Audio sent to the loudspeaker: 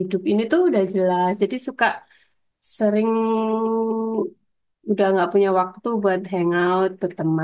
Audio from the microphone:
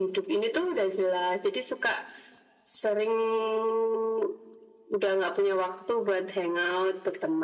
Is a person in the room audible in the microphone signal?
No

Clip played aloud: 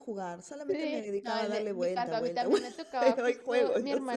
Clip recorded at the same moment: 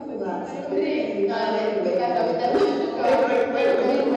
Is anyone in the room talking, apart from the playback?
Yes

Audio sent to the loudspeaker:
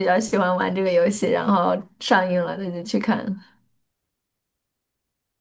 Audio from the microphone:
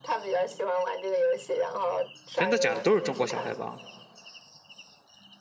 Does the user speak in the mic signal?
Yes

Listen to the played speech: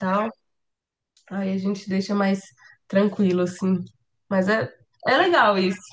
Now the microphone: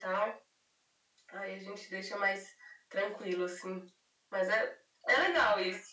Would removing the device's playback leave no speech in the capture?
Yes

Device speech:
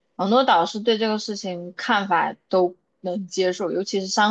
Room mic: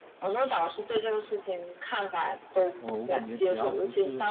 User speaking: Yes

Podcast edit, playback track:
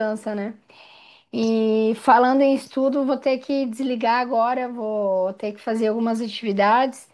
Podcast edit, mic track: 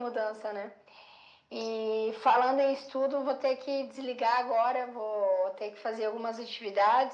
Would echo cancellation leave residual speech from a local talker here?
No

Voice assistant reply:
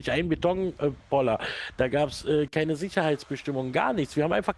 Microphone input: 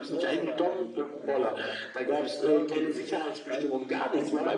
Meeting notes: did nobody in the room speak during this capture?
No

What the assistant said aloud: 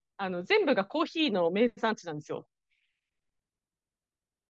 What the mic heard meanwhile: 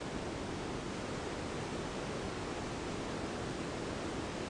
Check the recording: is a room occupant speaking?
No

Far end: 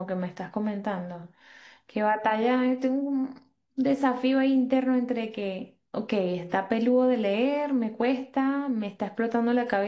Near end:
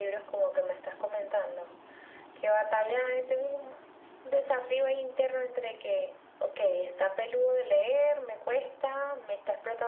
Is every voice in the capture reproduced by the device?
Yes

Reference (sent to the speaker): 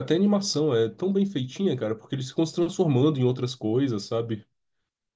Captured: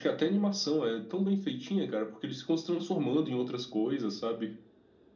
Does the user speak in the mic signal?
No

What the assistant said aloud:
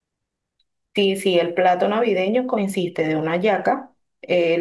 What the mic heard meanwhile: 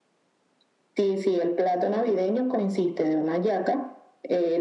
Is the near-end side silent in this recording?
Yes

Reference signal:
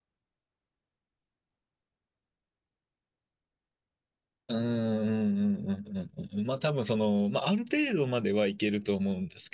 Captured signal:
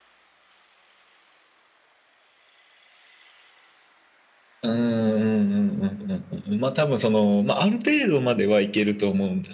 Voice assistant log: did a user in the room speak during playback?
No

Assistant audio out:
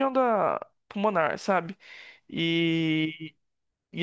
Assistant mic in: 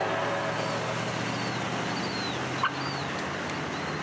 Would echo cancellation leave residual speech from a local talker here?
No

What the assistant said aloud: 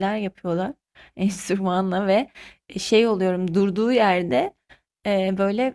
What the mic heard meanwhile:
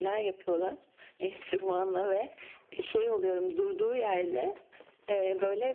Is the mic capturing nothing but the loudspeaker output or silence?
Yes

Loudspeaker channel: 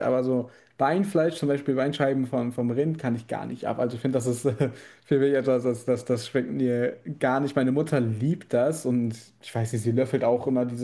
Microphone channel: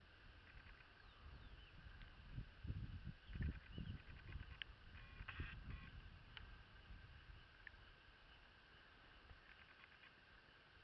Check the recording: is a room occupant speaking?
No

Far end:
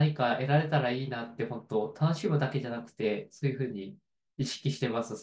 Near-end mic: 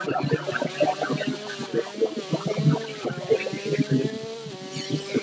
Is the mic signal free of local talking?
Yes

